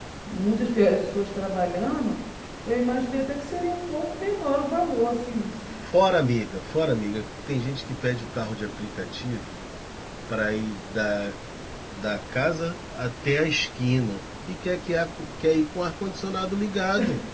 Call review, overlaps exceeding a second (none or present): none